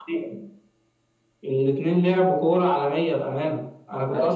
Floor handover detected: No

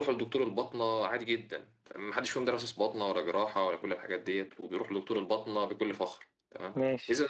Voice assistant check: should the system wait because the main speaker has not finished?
Yes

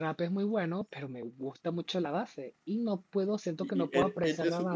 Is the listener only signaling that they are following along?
No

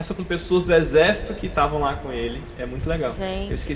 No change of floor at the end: No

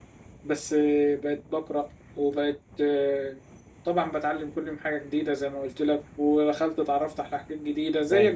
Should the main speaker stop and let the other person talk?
No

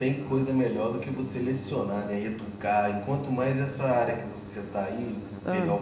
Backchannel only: Yes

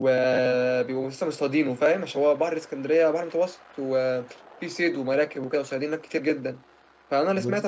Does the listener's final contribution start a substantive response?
No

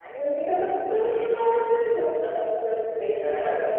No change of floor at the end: Yes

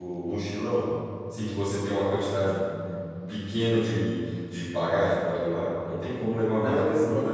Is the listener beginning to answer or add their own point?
Yes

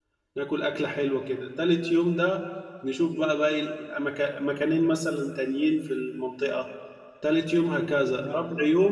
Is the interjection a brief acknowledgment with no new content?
Yes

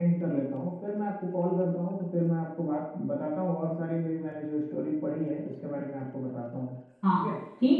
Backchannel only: No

